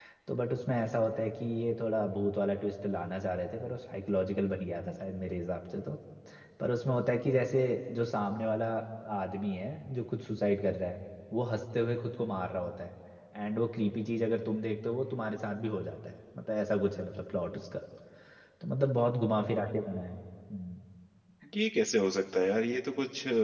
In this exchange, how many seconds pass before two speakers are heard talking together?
none

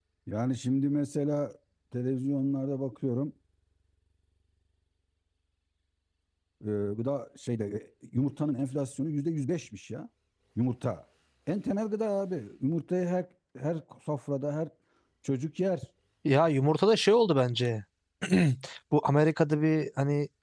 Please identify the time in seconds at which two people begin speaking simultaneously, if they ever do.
none

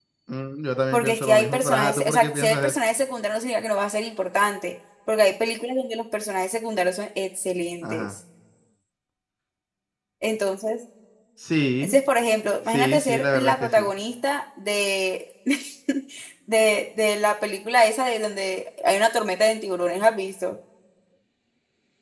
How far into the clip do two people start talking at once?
0.9 s

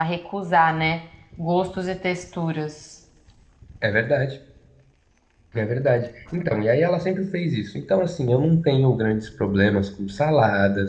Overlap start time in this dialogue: none

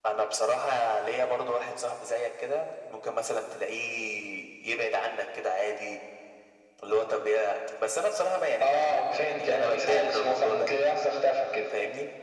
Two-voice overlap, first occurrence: 8.6 s

